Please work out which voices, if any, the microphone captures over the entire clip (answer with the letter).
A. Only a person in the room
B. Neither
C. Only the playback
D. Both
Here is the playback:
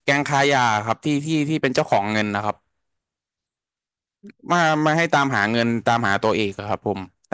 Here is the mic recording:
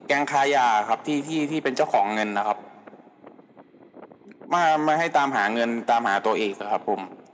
C